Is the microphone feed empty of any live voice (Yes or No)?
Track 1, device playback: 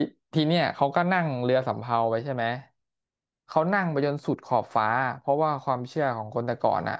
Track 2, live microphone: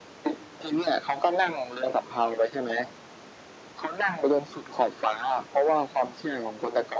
Yes